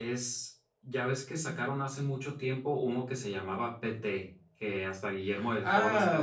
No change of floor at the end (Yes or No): No